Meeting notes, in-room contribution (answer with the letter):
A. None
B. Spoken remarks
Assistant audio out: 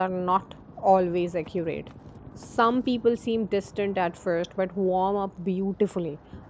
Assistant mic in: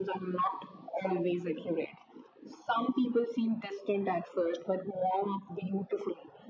A